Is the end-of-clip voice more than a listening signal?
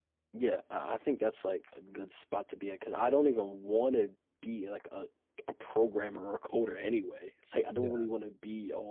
No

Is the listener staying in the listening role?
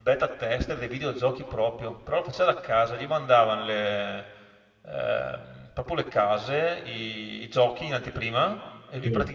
Yes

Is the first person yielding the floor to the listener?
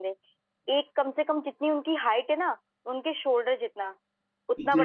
No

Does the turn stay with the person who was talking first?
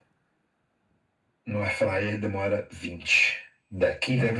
No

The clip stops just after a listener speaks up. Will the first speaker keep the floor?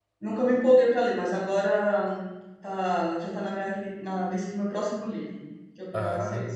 Yes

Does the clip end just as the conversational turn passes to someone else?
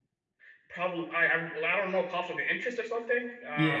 Yes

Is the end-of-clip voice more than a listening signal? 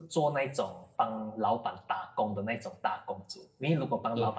No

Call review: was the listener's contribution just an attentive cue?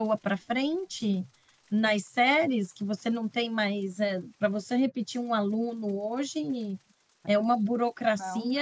Yes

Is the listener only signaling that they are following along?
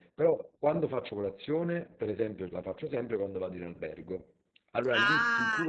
No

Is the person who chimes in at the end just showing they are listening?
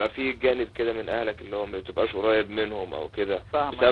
Yes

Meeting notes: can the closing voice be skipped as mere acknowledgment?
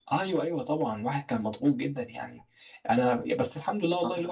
Yes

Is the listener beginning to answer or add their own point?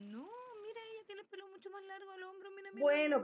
Yes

